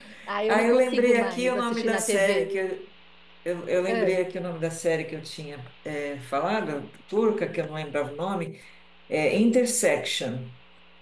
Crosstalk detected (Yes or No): Yes